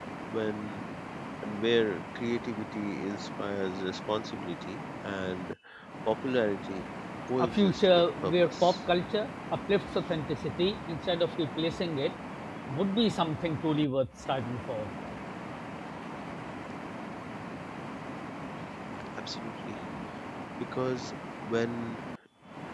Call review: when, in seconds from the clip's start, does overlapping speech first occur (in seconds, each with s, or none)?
7.4 s